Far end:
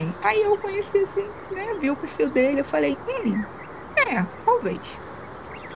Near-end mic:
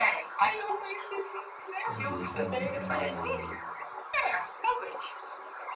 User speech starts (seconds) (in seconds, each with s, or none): 1.8 s